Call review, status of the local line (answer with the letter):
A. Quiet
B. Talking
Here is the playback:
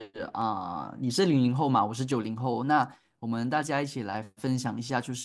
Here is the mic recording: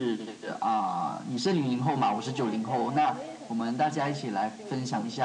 B